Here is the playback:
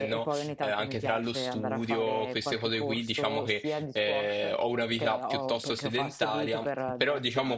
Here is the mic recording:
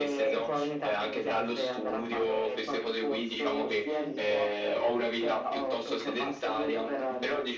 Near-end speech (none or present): none